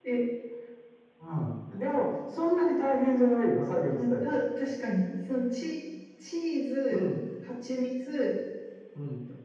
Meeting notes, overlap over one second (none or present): none